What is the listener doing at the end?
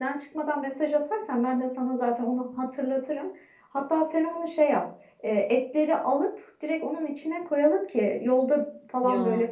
listening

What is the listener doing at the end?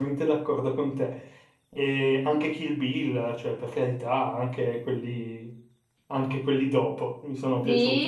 taking over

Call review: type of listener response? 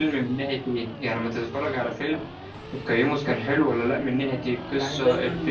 taking over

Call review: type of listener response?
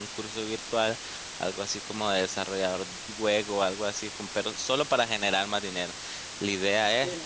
listening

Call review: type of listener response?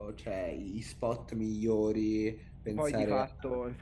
taking over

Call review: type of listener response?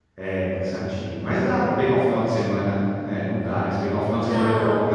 listening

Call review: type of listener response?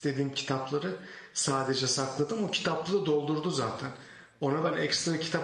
listening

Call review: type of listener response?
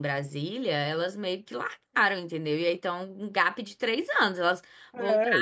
taking over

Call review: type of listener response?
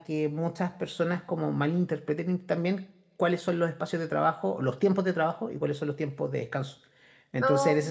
listening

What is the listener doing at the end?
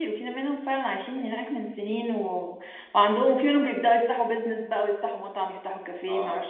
taking over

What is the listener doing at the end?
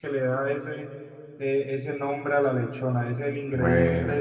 listening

